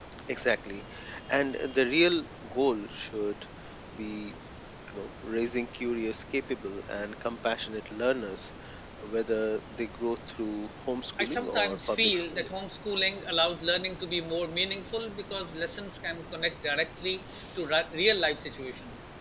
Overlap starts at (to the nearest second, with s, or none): 11 s